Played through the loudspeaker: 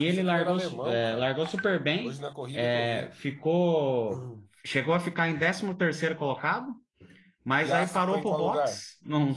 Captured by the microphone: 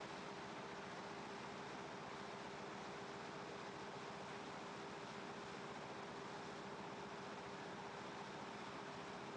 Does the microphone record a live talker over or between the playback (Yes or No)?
No